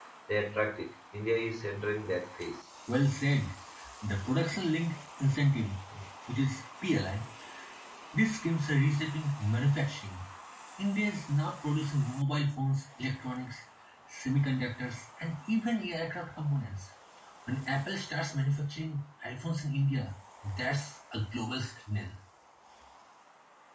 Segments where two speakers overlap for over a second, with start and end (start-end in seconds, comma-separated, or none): none